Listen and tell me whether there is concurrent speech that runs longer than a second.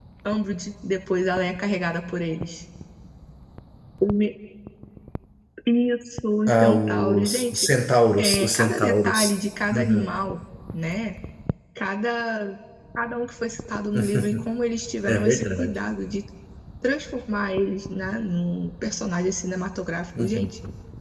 Yes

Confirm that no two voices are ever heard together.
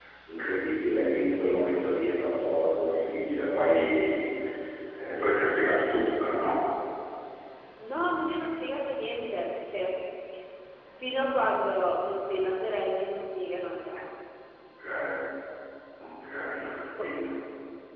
Yes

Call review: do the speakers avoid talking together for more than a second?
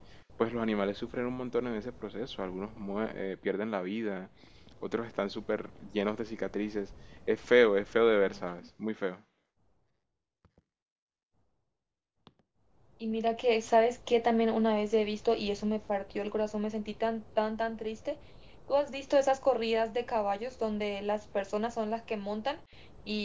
Yes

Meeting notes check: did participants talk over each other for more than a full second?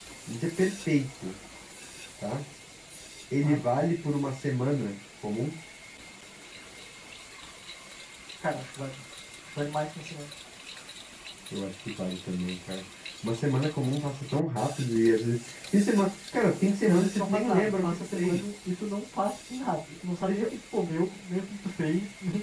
Yes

